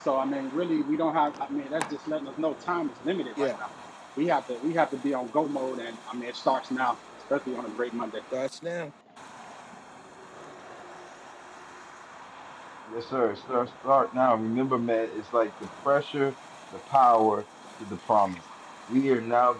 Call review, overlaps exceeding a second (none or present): none